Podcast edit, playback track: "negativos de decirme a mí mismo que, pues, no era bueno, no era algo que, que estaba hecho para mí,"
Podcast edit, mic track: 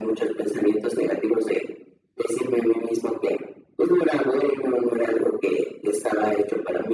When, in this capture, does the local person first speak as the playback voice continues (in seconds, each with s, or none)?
none